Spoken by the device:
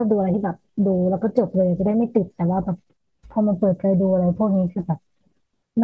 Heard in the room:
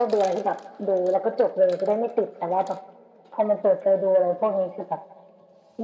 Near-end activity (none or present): none